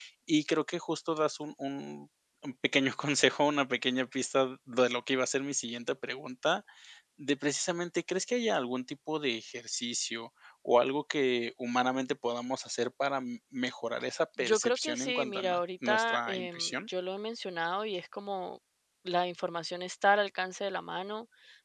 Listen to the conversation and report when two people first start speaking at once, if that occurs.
14.4 s

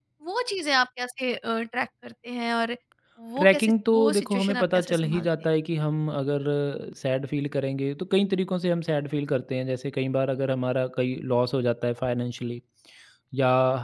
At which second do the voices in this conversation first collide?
3.4 s

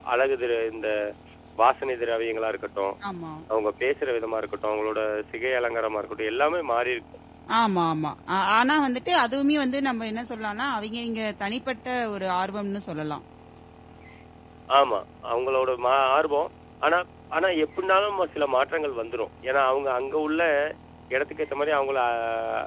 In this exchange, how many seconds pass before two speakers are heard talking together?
none

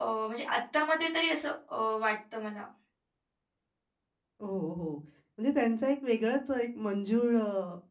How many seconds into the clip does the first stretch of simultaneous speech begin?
none

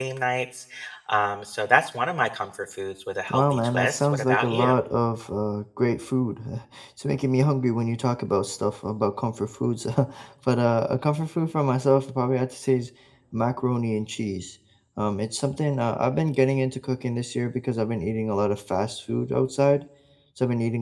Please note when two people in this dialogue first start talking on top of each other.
3.3 s

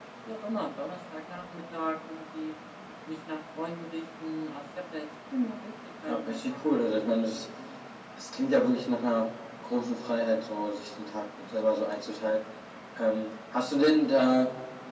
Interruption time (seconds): 6.1 s

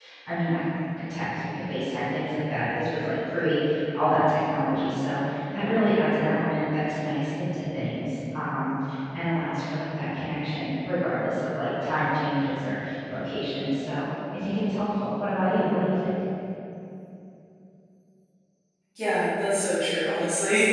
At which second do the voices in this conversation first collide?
none

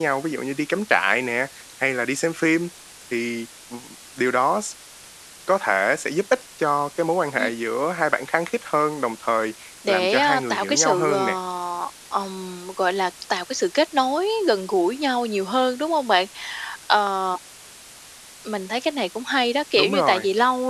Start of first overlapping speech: 9.9 s

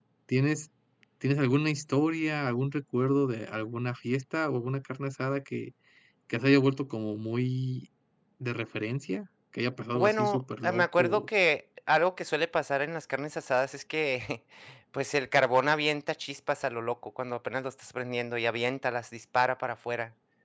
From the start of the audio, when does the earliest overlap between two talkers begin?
9.9 s

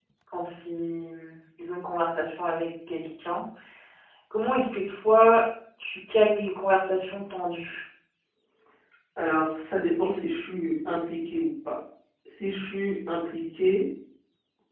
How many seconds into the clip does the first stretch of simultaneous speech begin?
none

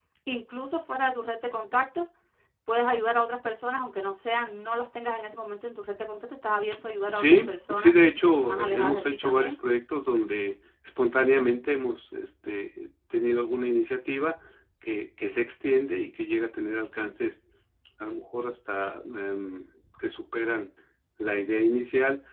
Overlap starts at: 7.1 s

